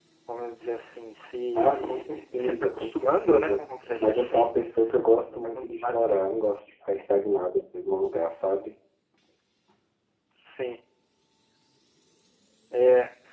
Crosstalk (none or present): present